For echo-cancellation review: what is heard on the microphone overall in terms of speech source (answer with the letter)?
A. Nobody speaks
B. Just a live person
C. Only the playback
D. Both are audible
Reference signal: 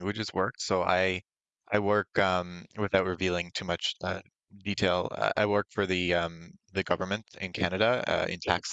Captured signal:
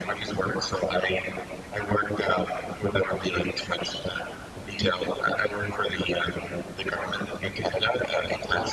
C